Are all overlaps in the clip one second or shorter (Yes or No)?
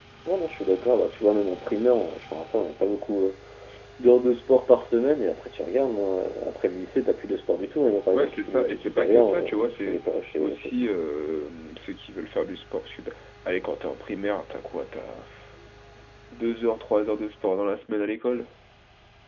No